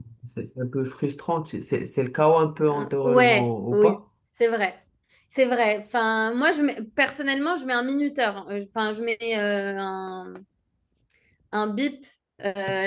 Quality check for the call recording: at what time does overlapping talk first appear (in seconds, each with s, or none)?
2.7 s